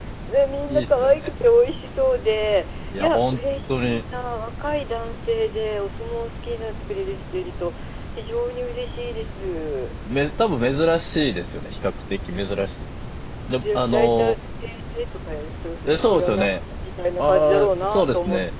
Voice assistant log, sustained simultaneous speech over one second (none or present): present